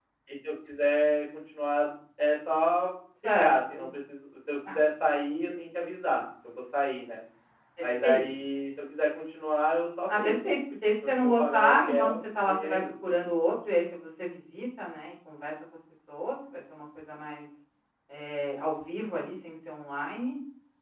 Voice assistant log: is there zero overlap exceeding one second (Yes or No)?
No